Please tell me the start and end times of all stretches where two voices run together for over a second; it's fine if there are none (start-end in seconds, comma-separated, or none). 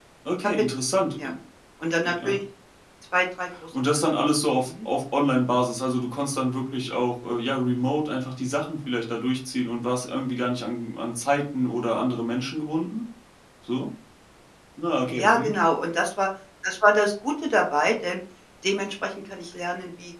none